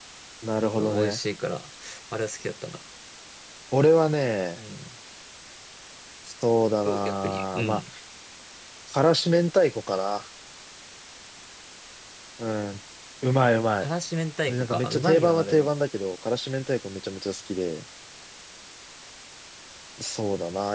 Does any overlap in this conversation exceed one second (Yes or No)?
Yes